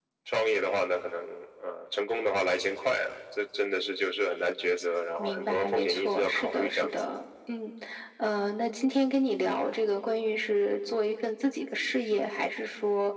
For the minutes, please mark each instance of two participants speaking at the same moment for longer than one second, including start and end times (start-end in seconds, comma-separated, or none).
5.2-6.9